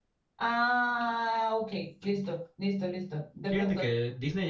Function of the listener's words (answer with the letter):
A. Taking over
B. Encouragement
A